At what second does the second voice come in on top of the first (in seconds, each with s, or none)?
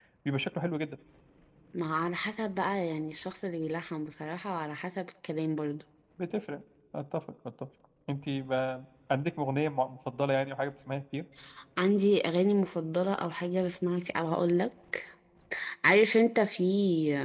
none